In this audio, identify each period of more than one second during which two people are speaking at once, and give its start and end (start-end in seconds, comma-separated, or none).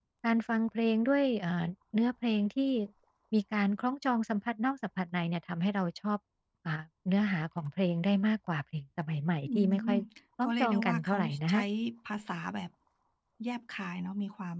10.4-11.6